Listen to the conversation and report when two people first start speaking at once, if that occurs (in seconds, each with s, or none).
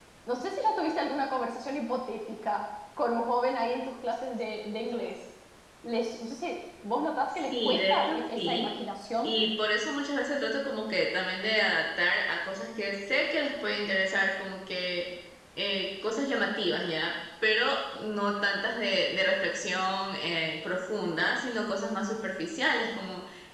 7.5 s